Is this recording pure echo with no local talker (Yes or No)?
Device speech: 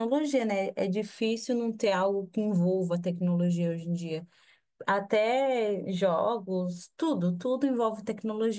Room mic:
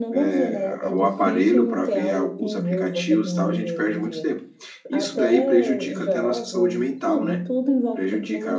No